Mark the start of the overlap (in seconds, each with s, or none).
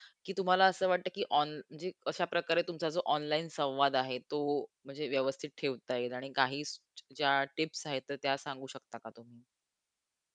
none